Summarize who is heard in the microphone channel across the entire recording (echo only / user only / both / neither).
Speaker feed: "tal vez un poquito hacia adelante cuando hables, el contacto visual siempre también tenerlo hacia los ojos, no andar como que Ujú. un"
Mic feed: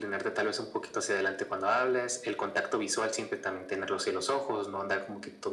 echo only